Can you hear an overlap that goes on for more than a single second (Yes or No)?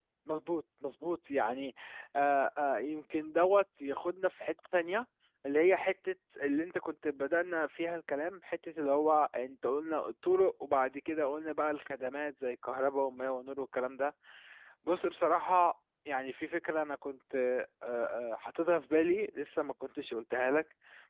No